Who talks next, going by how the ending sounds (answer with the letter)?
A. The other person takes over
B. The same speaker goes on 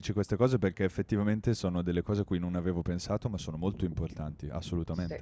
A